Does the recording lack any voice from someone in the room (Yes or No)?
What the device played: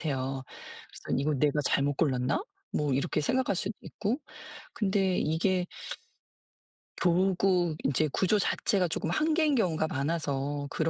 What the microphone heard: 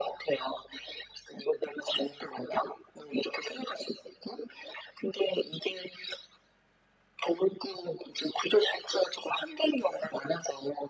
Yes